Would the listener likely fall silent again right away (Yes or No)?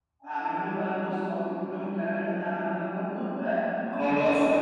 No